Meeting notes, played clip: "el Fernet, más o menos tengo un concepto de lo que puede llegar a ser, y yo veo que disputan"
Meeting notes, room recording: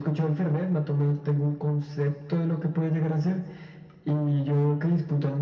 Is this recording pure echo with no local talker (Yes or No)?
Yes